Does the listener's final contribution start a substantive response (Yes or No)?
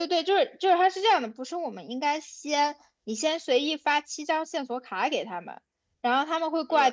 No